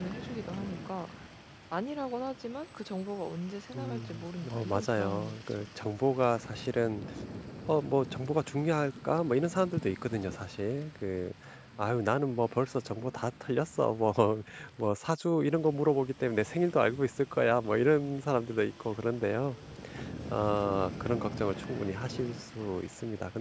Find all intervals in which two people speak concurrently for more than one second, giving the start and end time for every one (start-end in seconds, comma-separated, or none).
3.7-5.6